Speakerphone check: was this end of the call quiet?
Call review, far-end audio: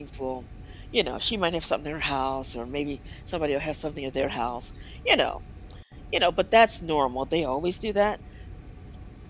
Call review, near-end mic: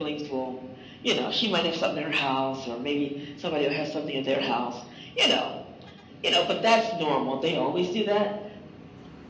Yes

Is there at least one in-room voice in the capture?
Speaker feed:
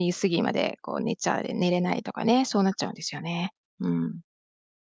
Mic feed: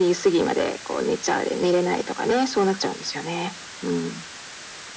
No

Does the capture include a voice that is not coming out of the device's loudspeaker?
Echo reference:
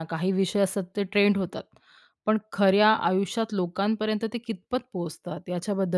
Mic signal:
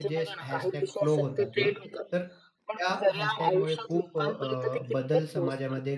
Yes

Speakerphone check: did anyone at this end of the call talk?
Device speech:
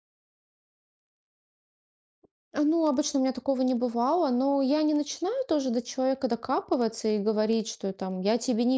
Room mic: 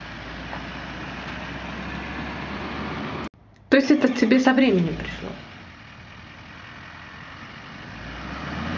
Yes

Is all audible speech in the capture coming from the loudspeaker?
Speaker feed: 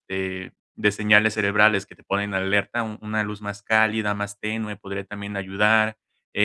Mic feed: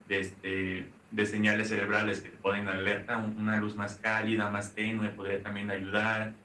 Yes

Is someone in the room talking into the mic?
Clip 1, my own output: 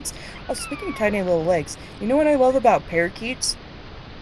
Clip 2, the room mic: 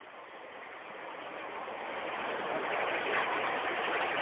No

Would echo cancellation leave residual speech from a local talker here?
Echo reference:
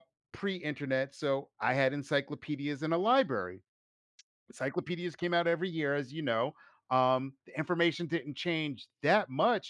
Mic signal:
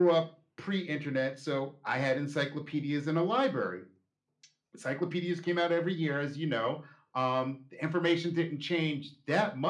No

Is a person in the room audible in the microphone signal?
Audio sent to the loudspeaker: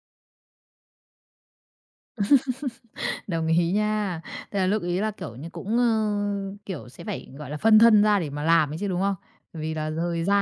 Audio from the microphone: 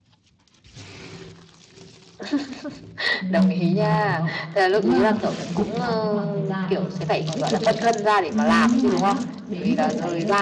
Yes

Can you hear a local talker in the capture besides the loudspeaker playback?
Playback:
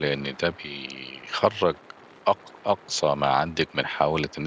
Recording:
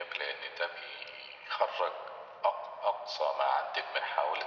No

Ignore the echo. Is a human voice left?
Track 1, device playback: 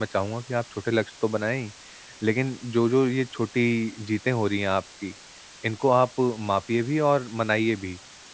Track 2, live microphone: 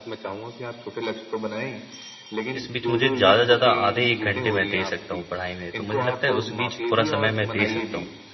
Yes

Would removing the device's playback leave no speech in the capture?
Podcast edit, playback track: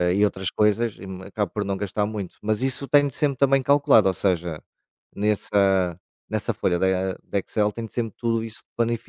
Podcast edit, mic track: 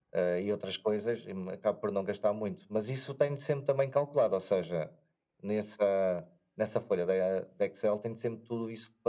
Yes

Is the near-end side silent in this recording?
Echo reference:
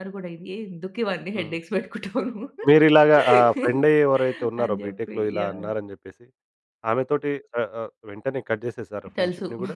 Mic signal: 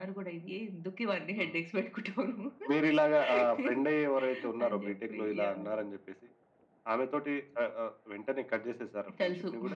Yes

